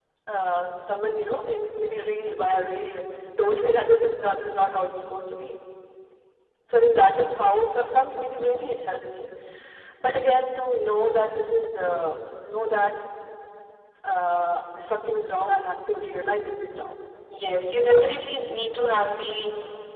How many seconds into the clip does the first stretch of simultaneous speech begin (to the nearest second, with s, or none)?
none